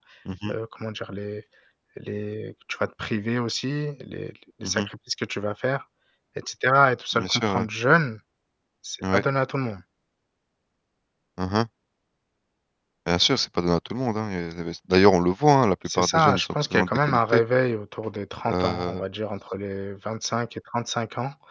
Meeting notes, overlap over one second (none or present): present